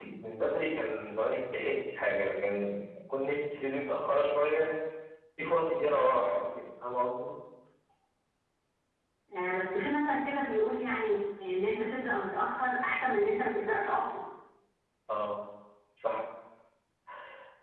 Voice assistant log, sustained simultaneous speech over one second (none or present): none